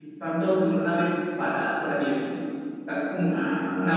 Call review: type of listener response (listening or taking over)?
listening